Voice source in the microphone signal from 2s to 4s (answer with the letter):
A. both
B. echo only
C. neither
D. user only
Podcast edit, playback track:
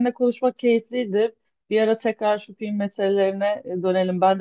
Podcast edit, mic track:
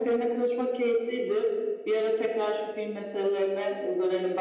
B